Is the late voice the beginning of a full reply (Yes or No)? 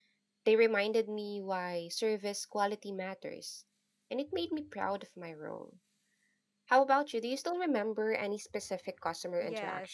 Yes